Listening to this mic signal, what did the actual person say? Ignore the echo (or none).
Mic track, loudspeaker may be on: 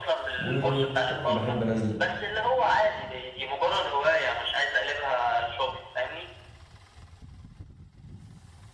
وطبعا بحب انزل